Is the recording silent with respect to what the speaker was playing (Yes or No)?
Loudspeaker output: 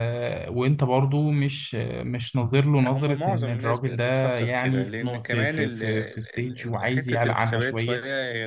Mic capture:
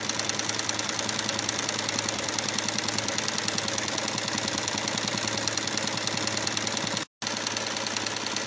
Yes